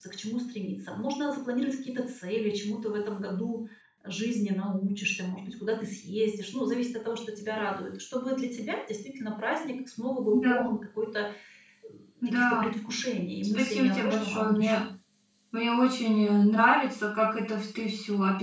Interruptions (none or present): present